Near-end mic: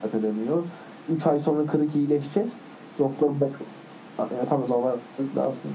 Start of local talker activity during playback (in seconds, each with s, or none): none